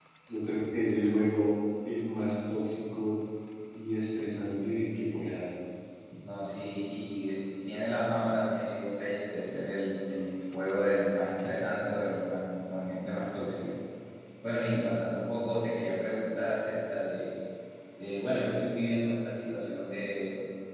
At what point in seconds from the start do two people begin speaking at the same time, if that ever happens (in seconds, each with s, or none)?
none